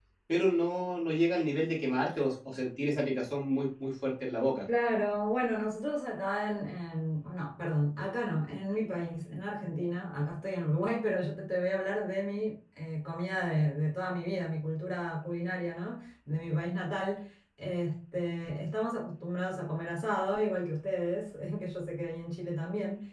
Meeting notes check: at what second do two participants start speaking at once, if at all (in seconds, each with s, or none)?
none